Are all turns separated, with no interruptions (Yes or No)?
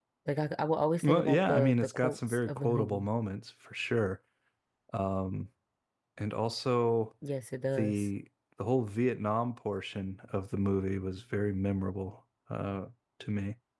No